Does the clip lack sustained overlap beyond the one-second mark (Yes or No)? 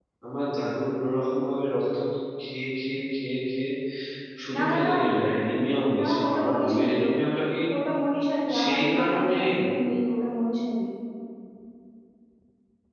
No